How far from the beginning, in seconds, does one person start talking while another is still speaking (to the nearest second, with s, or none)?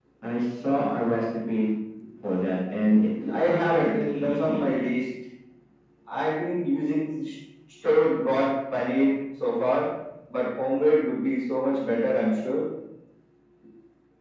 3 s